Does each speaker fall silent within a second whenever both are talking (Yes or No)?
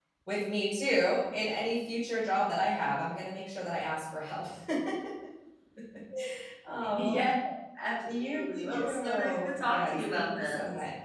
No